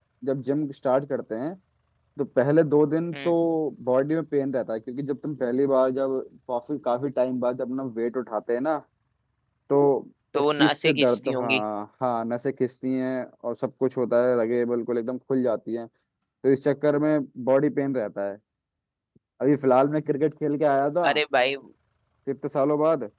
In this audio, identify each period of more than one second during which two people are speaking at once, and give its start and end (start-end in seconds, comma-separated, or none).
10.4-11.6